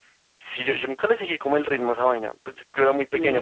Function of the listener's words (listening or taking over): taking over